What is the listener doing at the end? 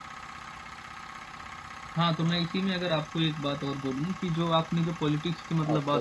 listening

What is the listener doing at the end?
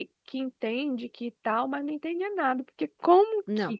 listening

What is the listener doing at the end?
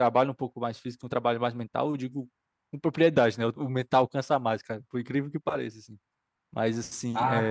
listening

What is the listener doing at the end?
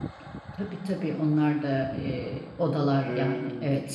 taking over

